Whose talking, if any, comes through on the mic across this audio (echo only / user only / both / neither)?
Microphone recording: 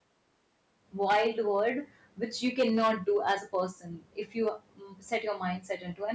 user only